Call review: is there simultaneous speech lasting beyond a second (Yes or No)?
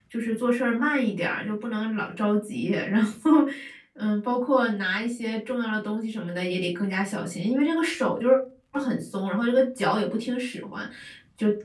No